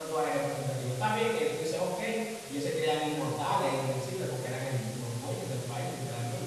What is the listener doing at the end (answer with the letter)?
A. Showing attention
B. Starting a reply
B